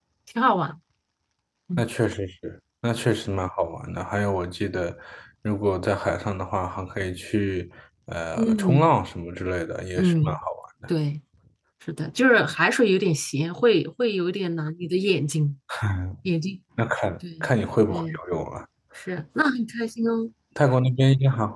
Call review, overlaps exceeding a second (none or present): none